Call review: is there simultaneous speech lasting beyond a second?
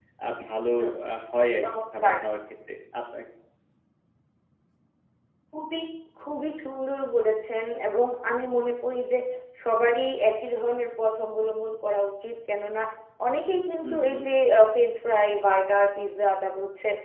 No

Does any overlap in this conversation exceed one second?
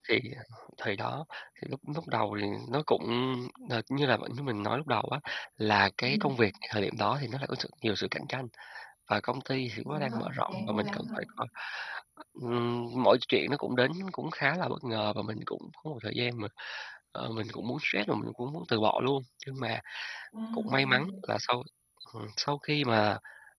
Yes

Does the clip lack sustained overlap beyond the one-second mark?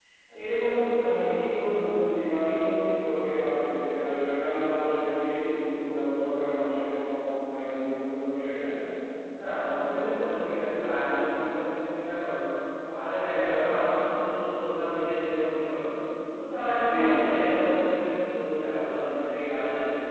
Yes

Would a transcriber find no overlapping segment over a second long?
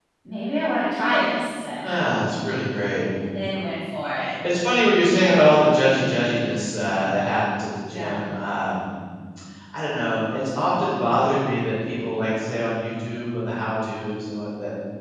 Yes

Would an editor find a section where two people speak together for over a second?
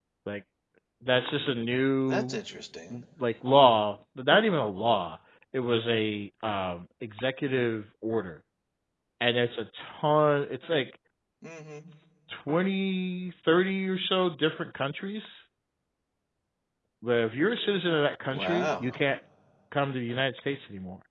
No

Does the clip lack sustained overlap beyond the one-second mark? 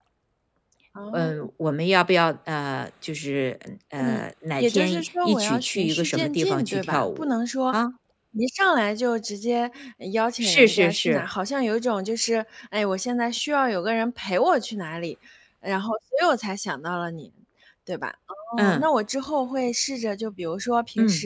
No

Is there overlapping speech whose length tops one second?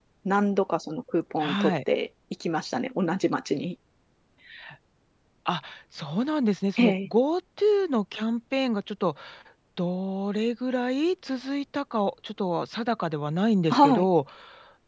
No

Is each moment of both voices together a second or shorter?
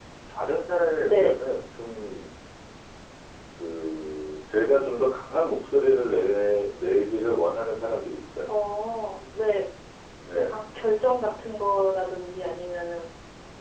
Yes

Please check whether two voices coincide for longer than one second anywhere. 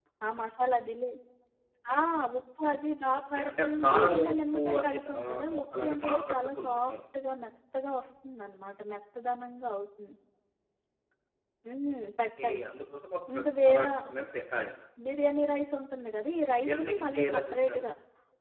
Yes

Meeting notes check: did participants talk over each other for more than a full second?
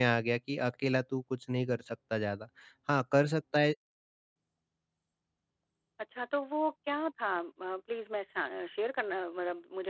No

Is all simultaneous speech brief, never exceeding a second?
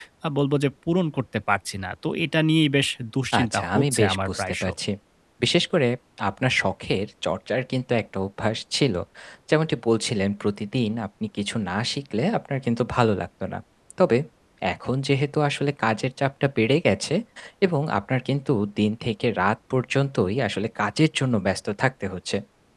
No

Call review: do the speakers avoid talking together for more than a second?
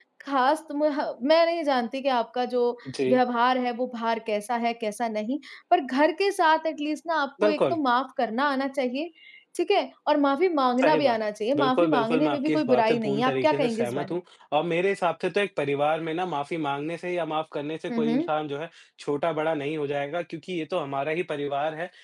No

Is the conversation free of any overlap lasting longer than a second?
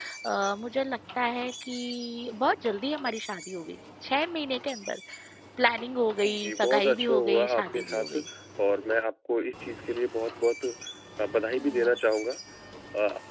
No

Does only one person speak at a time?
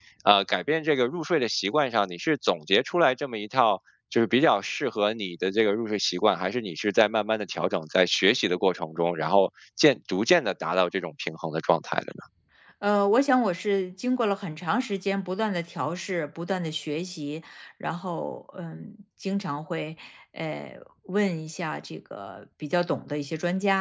Yes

